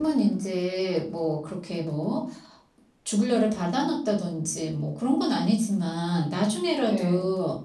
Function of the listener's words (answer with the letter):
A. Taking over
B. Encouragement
B